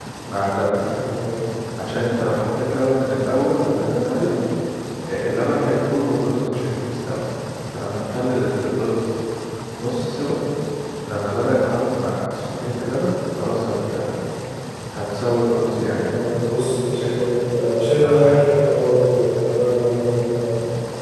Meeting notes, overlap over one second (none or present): none